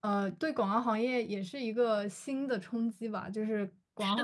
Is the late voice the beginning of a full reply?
No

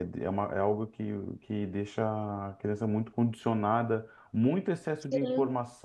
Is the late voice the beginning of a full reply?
No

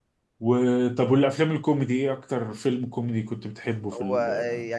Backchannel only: No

